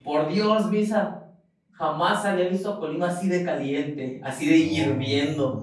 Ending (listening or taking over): taking over